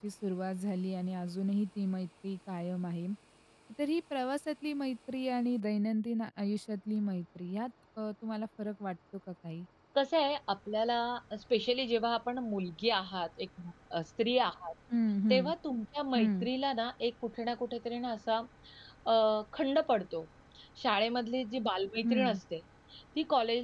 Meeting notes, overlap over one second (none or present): none